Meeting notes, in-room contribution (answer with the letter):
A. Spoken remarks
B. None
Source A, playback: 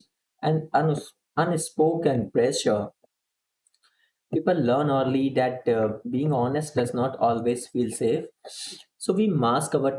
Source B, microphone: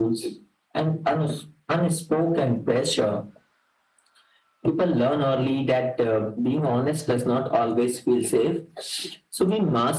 B